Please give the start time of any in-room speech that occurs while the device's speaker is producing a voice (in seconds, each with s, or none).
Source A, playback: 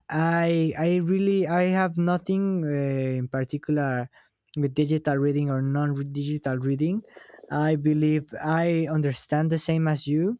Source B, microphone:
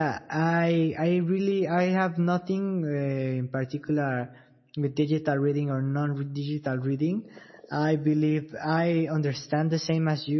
none